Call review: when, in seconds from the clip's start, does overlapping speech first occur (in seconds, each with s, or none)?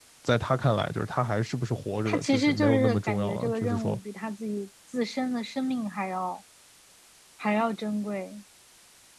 2.0 s